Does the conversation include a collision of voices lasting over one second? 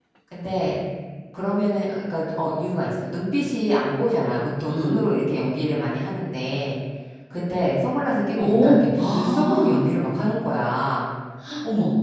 Yes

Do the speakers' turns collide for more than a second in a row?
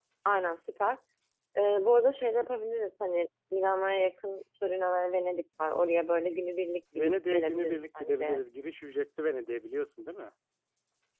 Yes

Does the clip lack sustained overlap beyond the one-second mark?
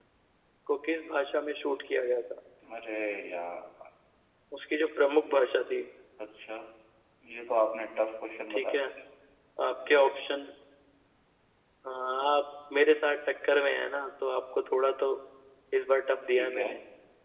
Yes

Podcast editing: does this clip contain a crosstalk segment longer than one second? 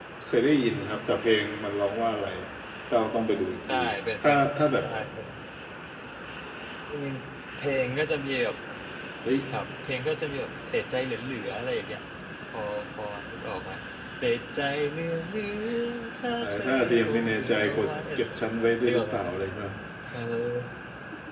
Yes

